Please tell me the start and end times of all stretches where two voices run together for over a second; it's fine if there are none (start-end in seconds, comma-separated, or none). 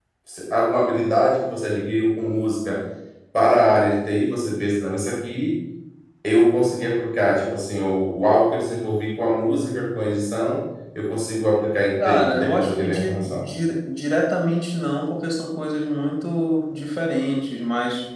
12.0-13.5